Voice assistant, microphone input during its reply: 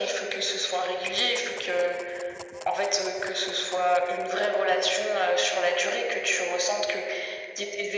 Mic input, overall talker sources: echo only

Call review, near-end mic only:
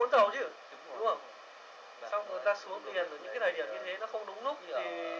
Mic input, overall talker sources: echo only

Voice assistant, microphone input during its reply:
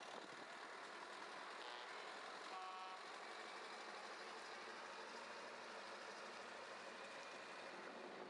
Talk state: neither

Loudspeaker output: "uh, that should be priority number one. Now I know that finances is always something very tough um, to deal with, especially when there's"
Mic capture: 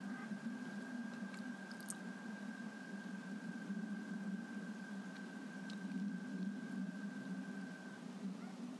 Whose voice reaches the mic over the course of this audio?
neither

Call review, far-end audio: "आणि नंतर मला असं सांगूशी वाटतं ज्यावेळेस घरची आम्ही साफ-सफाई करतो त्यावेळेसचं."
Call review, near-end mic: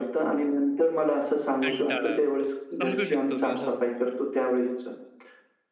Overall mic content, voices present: both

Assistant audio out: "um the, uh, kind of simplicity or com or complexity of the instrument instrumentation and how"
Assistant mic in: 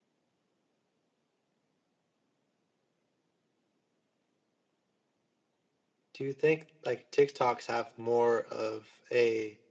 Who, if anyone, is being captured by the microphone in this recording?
user only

